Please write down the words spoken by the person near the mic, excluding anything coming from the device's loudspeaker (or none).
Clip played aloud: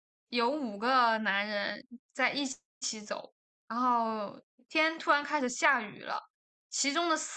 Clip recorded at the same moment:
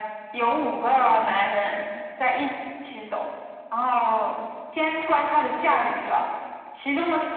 none